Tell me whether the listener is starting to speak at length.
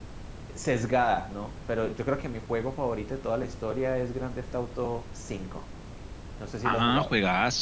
Yes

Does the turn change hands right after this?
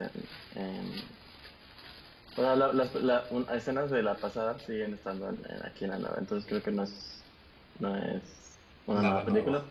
No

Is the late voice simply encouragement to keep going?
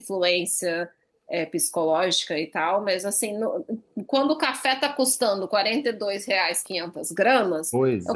Yes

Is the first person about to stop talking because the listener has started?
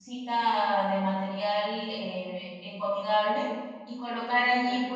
No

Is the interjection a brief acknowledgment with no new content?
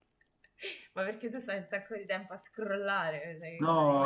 No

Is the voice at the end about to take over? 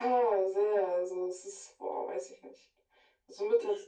No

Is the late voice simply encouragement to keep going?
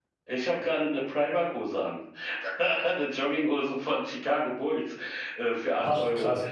Yes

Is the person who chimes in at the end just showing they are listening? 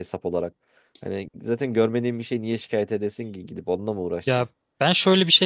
No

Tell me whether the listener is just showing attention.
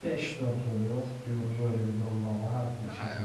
No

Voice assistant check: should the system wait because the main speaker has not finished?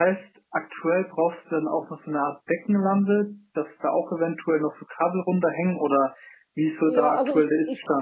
No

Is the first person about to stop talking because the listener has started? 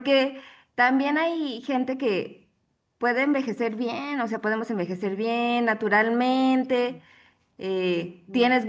No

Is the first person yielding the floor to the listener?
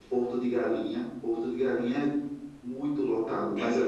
Yes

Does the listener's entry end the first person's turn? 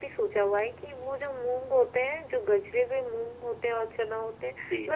No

